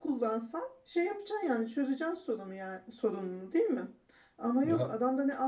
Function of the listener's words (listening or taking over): listening